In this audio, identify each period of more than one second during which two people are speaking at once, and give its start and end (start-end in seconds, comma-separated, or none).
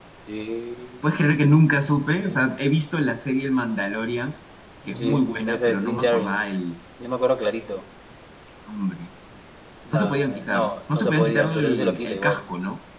5.0-6.4, 9.9-12.4